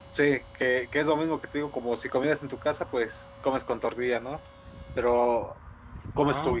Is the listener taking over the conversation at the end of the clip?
No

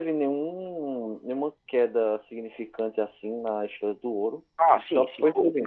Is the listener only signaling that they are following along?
No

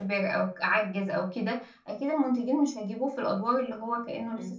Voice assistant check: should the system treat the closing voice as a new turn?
Yes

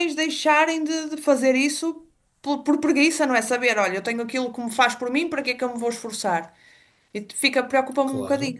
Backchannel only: No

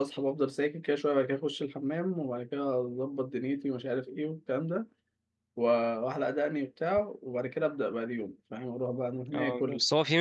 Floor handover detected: Yes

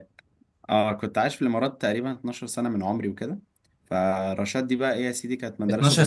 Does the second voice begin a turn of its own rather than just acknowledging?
Yes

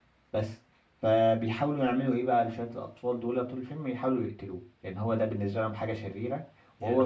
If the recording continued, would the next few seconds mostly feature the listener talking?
Yes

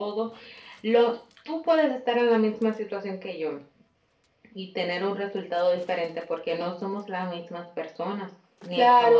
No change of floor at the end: No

